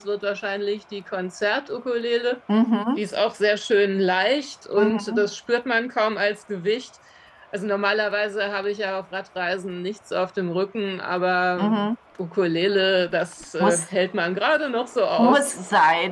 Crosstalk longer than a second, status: none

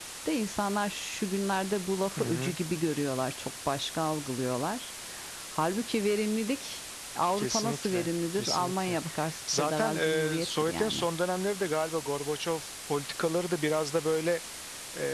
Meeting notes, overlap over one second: present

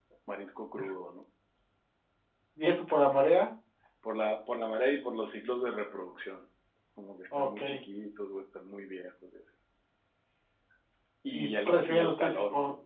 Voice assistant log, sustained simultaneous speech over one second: present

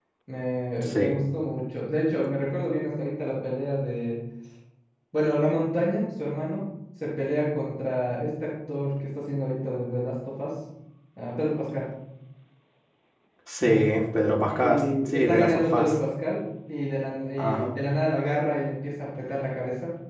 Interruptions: present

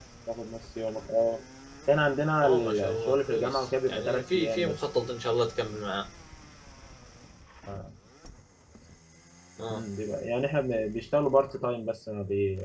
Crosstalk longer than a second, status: present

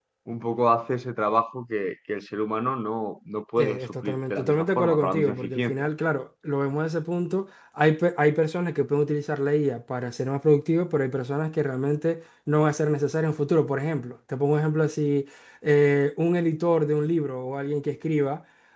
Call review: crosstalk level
present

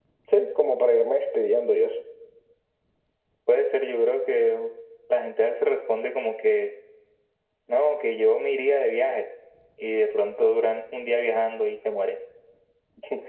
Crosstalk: none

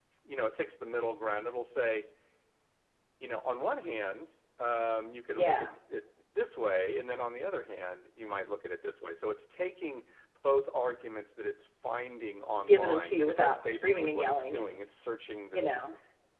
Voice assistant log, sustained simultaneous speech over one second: present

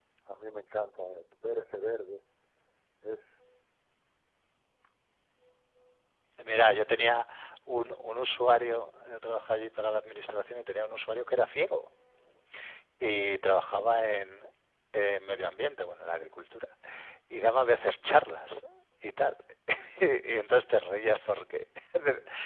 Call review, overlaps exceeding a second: none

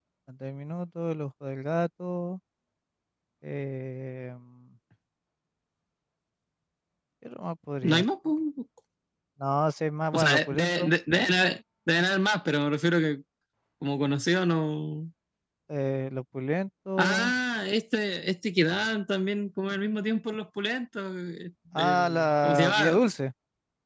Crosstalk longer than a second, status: present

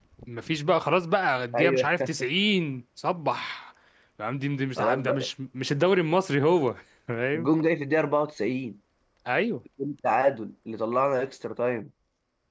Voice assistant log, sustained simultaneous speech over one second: none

